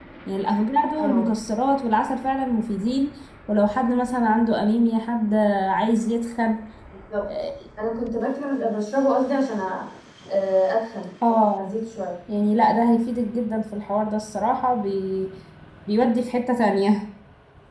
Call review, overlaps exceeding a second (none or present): none